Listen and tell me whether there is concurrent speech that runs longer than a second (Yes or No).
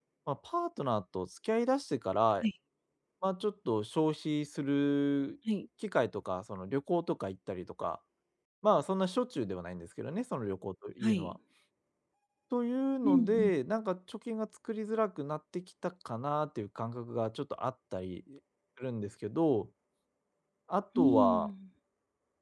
No